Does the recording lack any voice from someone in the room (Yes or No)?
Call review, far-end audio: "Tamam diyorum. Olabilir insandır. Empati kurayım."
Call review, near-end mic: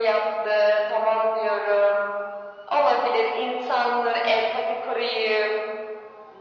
Yes